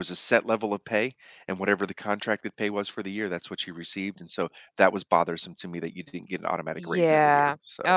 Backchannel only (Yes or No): No